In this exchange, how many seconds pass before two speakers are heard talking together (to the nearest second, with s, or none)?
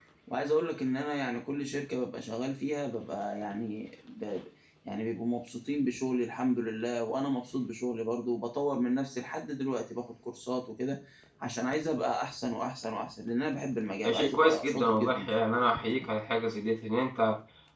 14 s